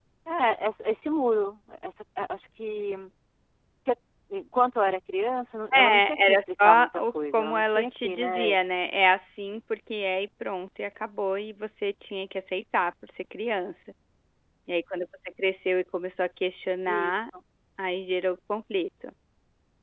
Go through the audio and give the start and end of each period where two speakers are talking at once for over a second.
5.7-8.5

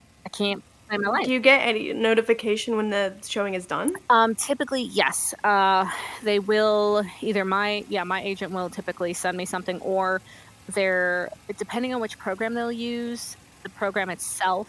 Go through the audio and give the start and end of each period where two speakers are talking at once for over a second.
none

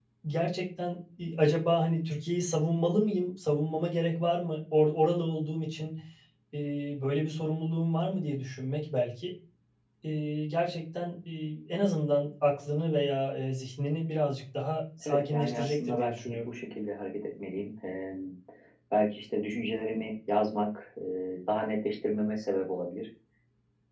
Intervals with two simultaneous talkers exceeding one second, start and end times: 15.1-16.5

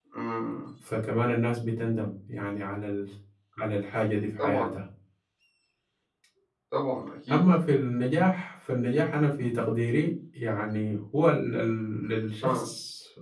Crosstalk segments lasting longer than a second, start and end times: none

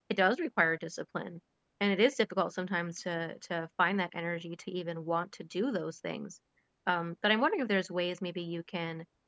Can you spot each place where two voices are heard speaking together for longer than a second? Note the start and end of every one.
none

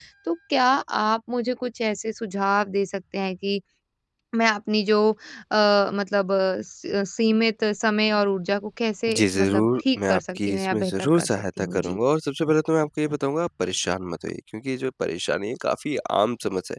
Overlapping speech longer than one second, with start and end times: 9.1-12.0

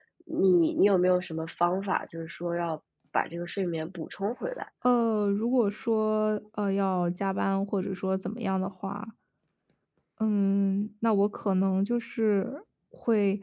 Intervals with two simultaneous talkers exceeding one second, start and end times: none

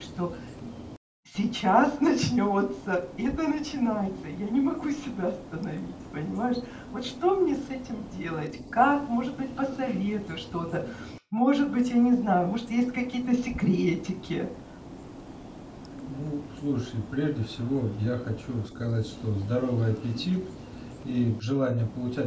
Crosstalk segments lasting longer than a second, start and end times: none

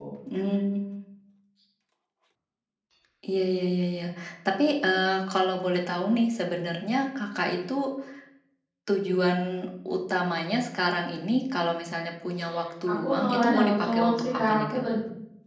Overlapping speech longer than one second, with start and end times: 12.9-14.8

